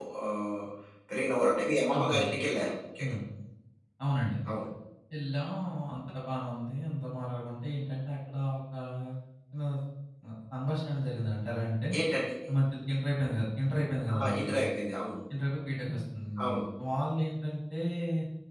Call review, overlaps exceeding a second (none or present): none